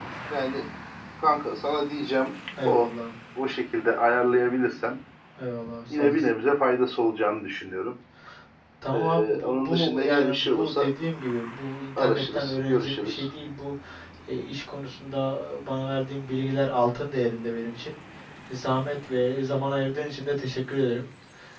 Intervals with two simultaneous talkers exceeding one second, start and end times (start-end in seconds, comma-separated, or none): 8.9-10.8, 12.0-13.3